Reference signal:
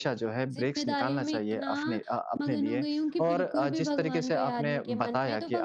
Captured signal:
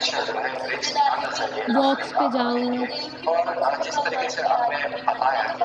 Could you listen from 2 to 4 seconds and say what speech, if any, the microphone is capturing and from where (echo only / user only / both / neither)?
both